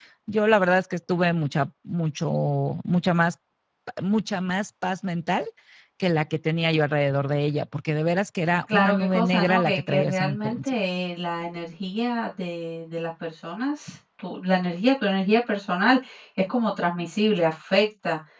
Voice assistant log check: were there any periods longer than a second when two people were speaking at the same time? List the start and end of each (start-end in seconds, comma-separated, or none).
8.7-10.7